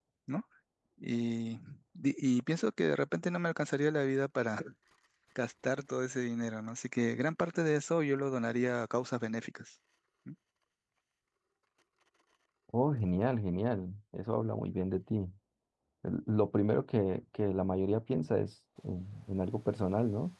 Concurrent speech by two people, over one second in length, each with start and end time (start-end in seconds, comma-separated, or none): none